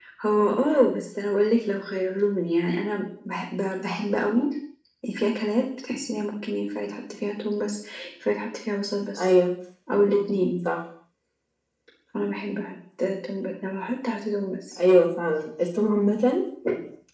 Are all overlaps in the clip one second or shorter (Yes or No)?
Yes